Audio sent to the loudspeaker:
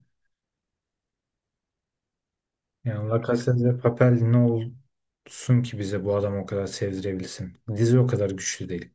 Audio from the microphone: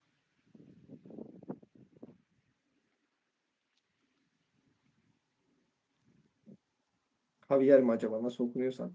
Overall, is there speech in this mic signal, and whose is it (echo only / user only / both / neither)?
user only